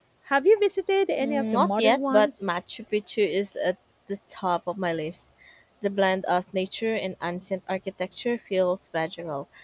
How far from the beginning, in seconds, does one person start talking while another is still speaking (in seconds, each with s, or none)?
1.2 s